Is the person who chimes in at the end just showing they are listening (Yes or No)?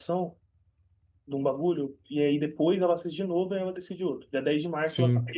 Yes